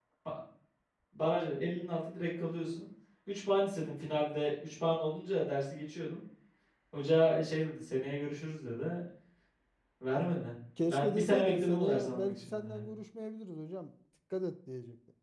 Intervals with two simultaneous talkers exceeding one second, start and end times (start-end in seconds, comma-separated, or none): 10.9-12.9